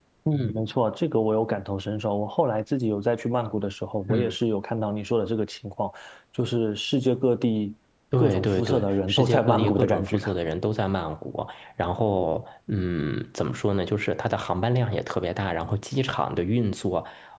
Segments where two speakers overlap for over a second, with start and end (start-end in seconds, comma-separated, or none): 8.2-10.2